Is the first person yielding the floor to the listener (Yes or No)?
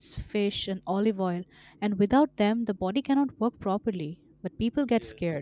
No